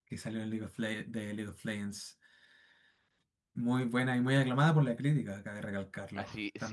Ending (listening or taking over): taking over